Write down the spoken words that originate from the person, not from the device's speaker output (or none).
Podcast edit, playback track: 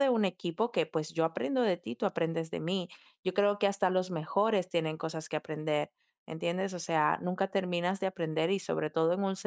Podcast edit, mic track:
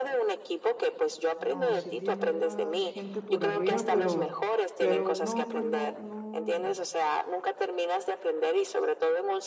No, sí tiene más gente por arriba, pero, pero no, pues no, no,